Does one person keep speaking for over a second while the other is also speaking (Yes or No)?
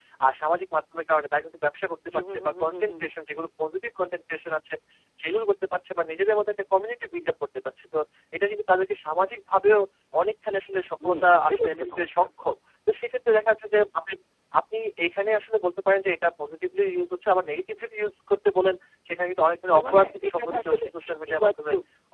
Yes